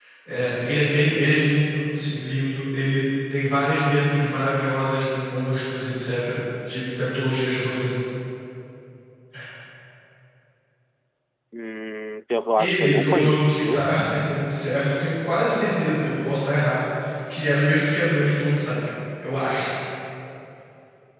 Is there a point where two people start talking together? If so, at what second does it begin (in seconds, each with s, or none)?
12.6 s